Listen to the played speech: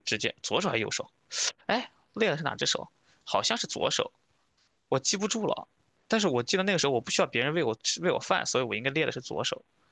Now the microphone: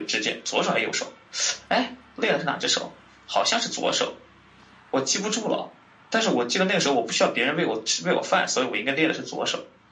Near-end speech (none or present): none